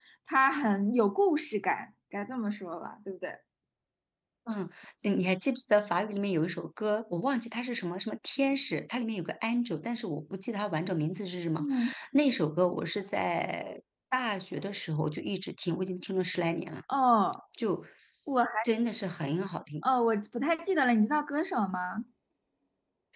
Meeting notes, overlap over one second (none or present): none